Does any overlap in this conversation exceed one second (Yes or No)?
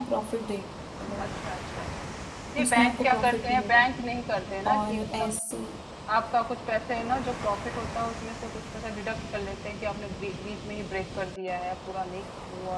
Yes